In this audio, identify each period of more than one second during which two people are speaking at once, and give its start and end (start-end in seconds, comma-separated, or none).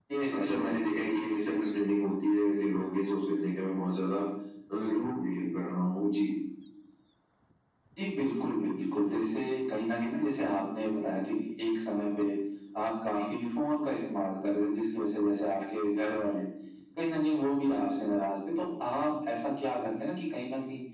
none